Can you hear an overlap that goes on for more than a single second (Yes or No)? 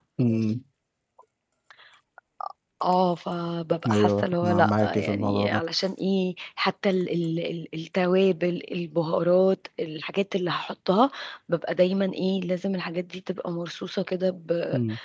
Yes